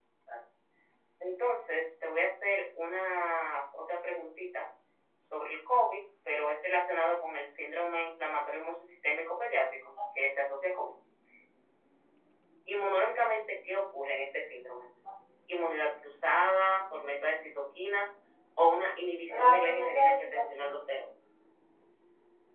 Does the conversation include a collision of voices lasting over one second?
Yes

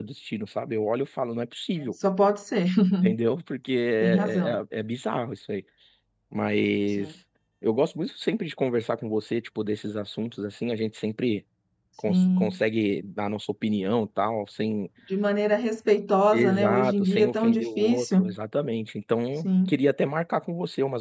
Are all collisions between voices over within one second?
No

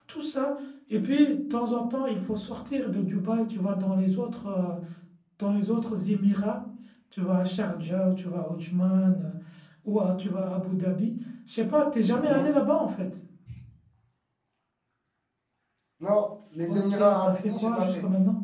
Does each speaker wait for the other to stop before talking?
No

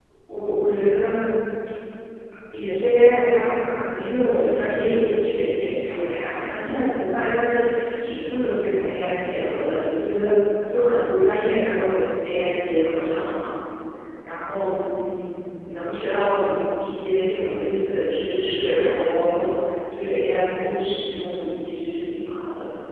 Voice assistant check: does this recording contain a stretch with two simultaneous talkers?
No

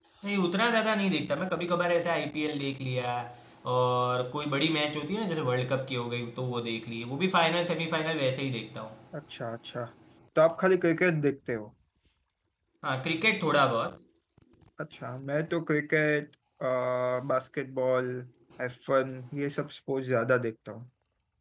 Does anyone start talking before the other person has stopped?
No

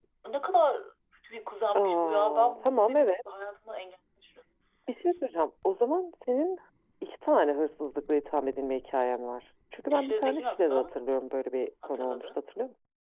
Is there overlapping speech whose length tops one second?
Yes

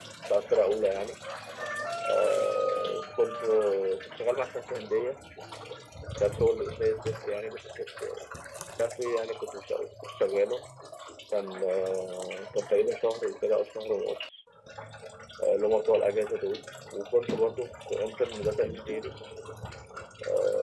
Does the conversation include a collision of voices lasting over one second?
No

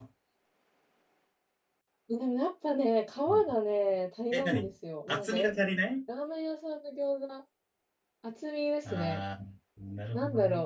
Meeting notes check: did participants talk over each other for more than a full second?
No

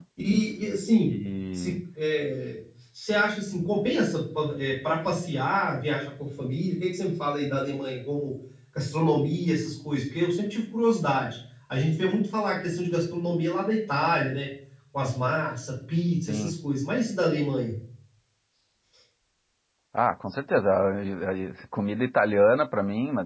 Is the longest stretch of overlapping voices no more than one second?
Yes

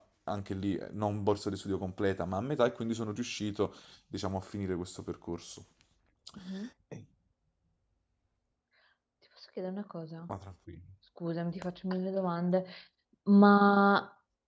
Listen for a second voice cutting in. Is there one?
No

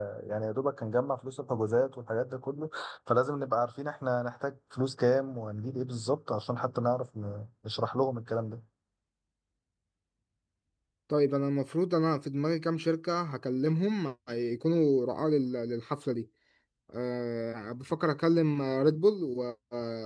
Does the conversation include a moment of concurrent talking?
No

